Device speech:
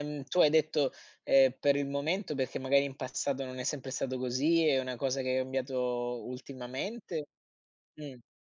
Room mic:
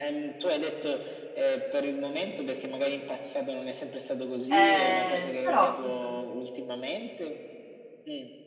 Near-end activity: present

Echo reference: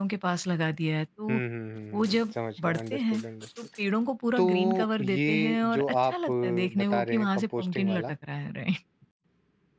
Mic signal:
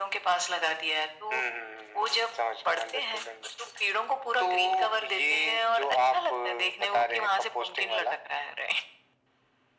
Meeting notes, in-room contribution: none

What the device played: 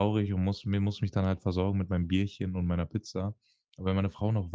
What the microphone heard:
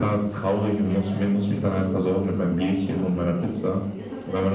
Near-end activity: present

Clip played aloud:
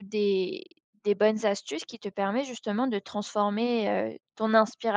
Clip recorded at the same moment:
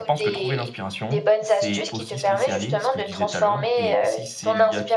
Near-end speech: present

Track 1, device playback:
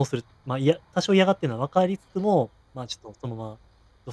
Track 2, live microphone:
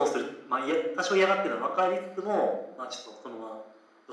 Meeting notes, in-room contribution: none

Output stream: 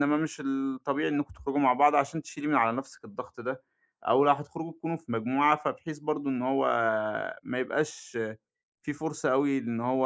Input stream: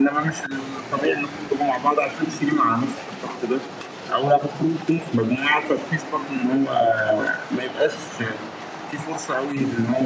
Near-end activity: none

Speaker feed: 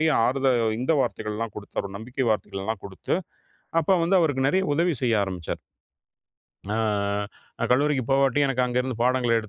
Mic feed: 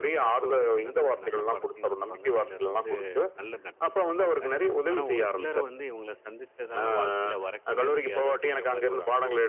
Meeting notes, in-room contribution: present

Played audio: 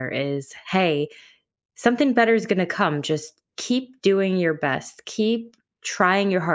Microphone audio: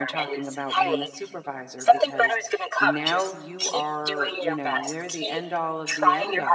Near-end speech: present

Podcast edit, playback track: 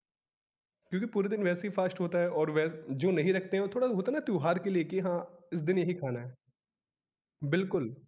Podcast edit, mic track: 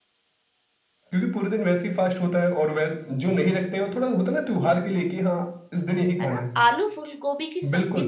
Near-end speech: present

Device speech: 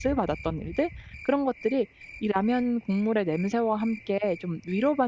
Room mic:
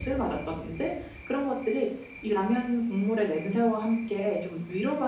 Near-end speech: none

